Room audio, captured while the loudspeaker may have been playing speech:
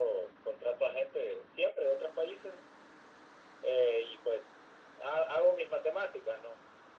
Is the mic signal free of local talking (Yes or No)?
Yes